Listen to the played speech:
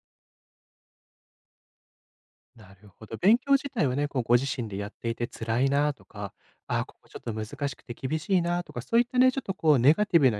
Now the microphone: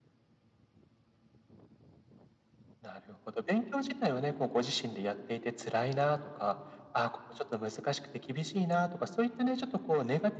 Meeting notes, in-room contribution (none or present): none